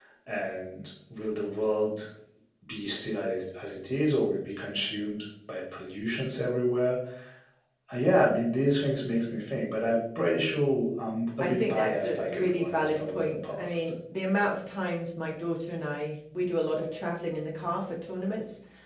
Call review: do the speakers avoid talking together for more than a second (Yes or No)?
No